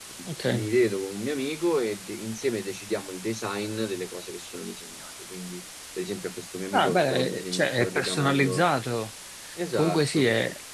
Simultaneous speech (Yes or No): Yes